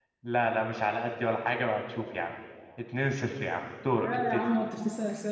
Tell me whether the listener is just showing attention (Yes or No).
No